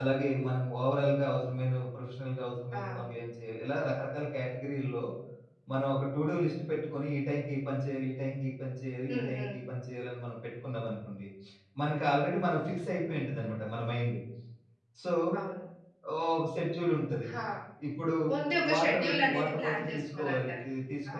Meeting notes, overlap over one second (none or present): present